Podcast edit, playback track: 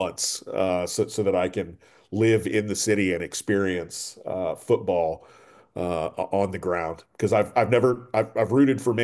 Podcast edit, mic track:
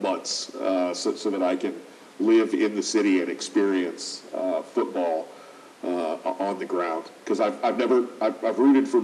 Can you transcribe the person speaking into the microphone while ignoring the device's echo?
none

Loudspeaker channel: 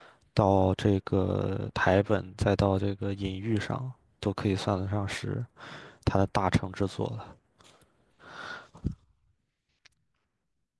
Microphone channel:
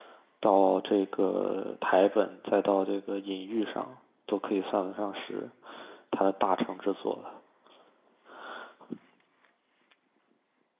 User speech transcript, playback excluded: none

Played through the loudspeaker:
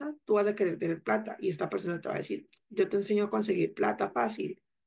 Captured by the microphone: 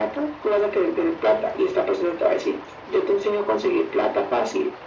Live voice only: none

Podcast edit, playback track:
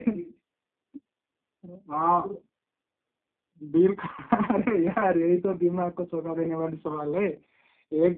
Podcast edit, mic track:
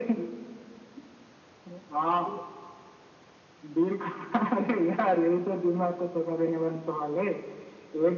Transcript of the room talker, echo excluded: none

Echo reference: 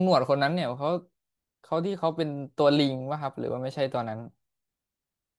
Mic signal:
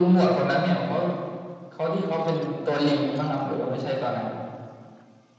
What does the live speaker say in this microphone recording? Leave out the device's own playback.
none

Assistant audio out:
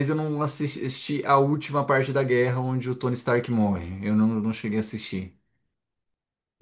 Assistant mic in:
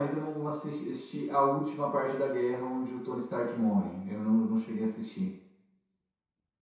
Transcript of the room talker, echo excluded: none

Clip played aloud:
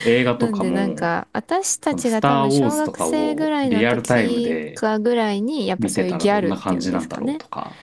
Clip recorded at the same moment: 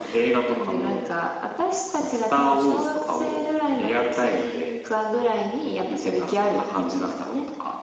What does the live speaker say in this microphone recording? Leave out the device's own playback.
none

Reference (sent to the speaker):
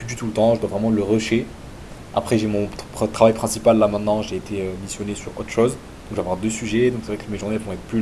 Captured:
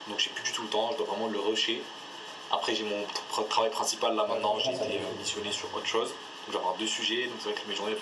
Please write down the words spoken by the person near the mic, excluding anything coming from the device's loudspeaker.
Ouais, franchement, ça défoule. Moi, ça-

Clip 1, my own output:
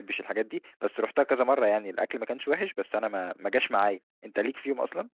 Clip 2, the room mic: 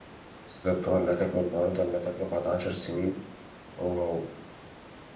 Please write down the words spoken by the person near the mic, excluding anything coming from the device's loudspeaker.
بالظبط هو اللي هتاكله النهاردة اللي هتاكله بعد 10 سنين هو هو

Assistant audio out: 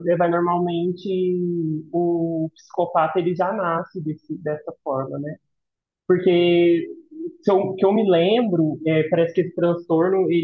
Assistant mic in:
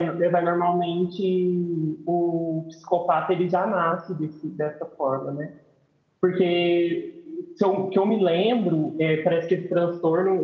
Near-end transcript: none

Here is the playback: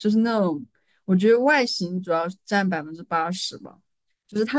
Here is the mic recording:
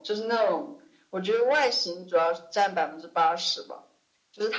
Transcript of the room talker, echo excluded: none

